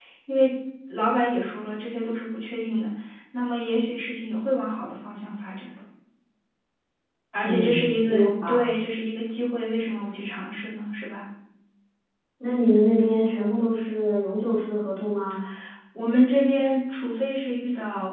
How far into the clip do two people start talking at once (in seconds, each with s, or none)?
7.4 s